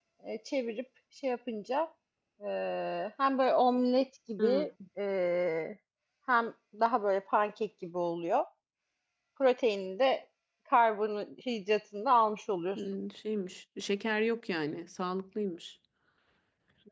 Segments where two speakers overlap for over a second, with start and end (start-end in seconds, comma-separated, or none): none